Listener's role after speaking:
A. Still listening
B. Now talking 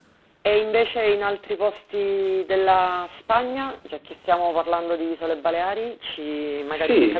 B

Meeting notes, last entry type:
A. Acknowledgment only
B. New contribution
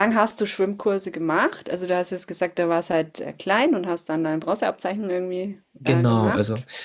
B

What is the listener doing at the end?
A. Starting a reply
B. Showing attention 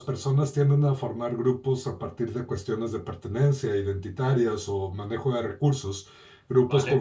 B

